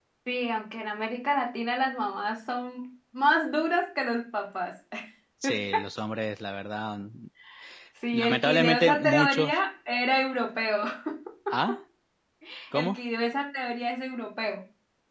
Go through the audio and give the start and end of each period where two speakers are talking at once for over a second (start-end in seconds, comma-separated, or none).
8.1-9.6